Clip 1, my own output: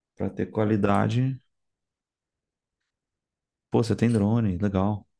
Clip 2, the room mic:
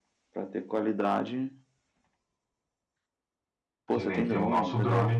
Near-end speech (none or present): present